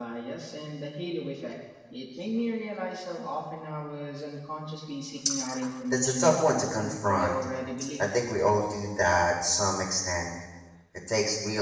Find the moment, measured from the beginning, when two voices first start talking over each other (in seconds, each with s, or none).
5.9 s